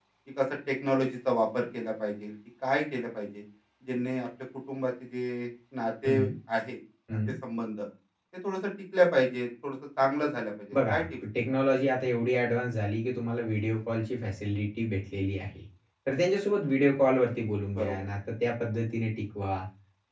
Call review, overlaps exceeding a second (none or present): none